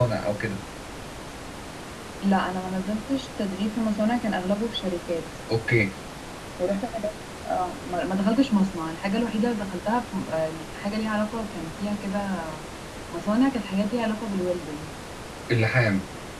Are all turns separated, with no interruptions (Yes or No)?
Yes